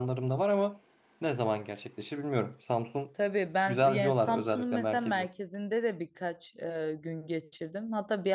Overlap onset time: 3.7 s

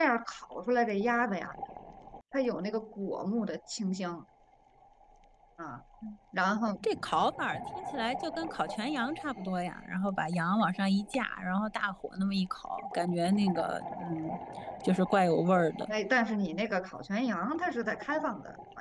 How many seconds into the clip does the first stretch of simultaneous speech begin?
none

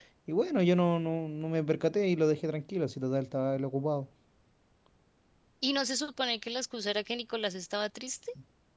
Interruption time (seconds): none

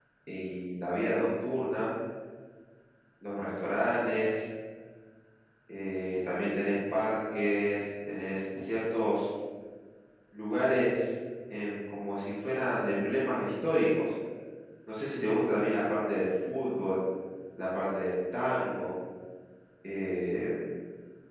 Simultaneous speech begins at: none

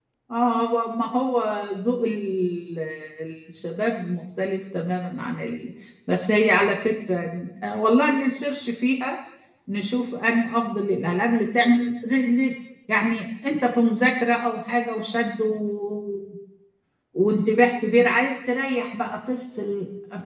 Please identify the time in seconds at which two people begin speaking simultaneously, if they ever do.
none

